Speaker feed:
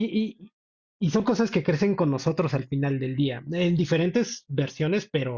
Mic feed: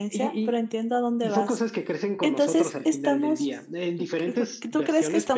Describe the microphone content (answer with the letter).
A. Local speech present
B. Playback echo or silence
A